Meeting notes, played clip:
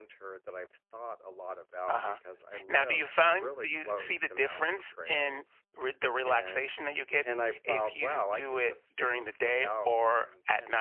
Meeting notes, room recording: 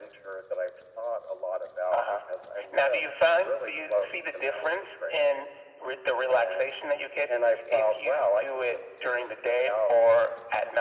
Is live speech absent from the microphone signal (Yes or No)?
Yes